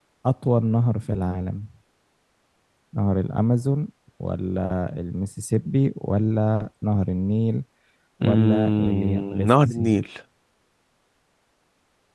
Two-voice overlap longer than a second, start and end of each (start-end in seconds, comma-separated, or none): 8.2-9.9